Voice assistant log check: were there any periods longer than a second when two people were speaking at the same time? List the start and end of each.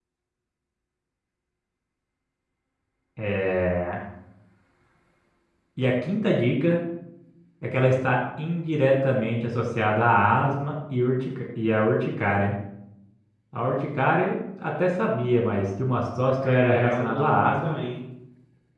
16.4-17.8

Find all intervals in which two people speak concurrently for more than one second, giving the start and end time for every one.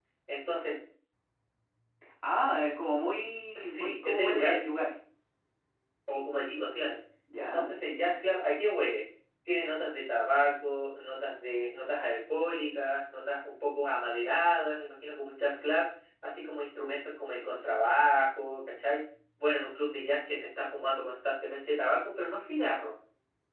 3.5-4.8

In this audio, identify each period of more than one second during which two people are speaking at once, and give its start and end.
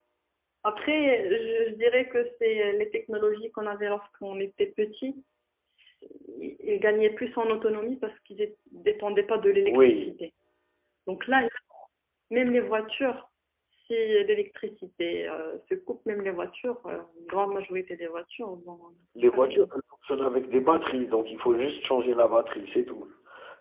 none

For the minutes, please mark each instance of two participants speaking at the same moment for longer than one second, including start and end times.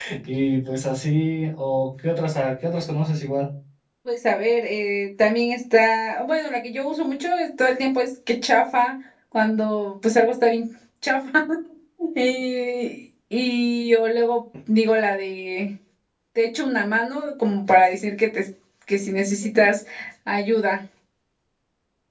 none

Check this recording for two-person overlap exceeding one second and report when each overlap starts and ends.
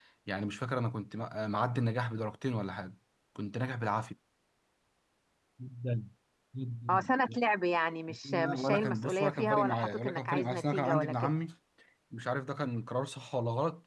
8.2-11.3

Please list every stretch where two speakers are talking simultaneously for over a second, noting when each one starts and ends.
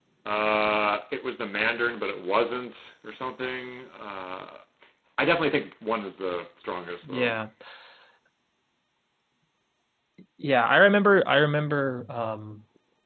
none

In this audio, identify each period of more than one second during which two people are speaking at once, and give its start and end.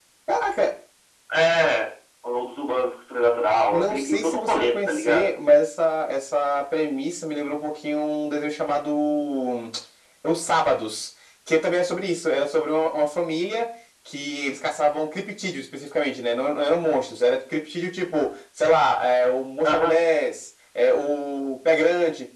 3.7-5.3

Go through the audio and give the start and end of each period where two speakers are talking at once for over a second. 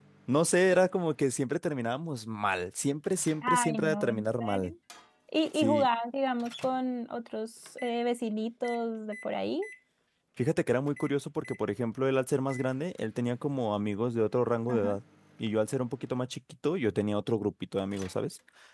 3.4-4.7

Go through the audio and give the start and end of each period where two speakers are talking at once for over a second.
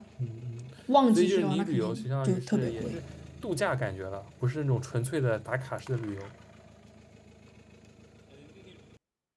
1.1-3.0

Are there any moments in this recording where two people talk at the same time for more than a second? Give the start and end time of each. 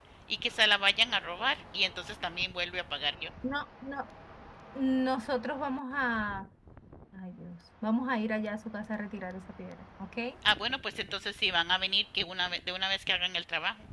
none

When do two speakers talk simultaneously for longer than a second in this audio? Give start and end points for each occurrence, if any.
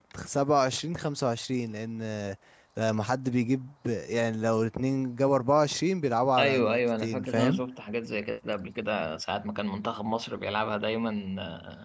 6.4-7.6

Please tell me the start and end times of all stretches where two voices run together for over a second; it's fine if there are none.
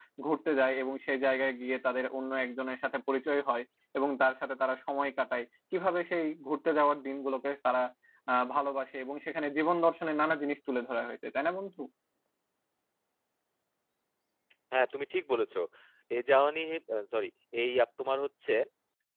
none

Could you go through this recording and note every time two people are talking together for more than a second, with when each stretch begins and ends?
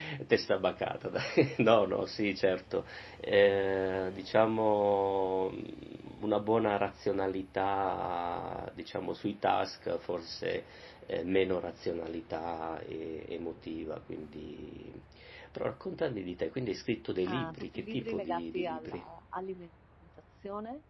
17.2-19.0

